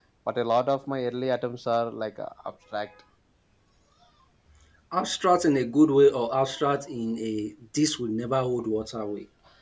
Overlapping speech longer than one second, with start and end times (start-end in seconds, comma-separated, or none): none